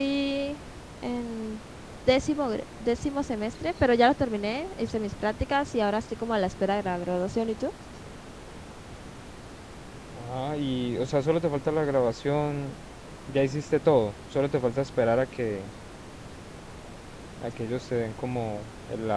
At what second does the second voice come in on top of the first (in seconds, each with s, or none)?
none